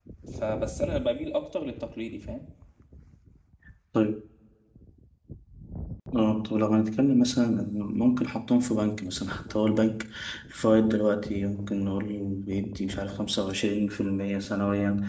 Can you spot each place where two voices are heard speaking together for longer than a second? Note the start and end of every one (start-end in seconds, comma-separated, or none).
none